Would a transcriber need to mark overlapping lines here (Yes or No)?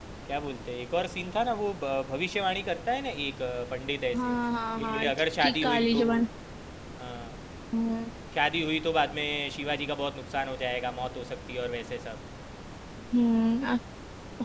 Yes